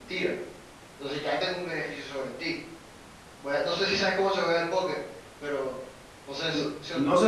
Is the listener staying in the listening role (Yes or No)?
No